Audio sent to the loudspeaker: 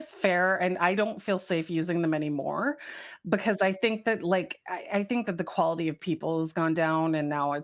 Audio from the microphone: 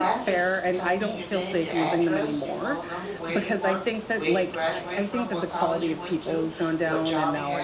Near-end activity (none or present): present